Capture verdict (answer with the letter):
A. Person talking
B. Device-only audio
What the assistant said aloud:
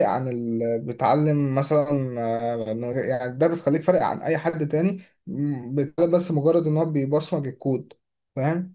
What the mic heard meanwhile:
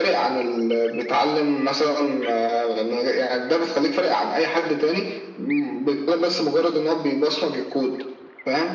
B